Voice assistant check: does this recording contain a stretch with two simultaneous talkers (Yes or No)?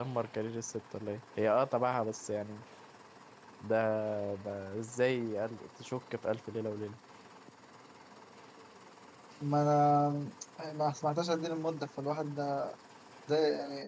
No